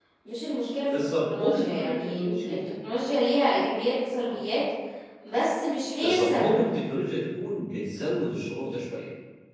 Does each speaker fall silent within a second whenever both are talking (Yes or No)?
No